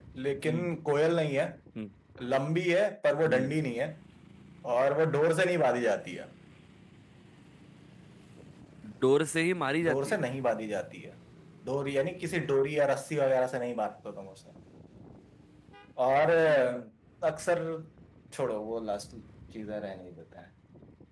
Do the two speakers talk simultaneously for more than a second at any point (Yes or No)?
No